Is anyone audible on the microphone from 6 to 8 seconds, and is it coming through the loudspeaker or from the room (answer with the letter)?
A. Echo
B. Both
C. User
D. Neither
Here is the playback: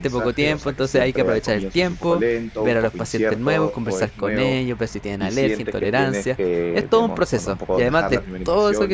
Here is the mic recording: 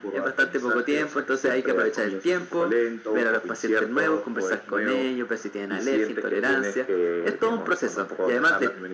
A